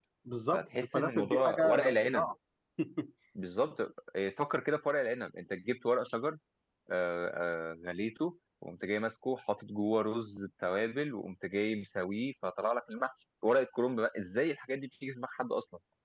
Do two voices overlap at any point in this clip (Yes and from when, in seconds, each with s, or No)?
Yes, from 0.5 s